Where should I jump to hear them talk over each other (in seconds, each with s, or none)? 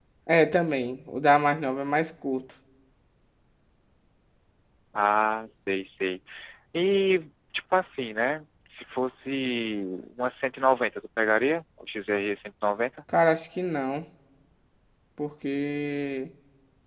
none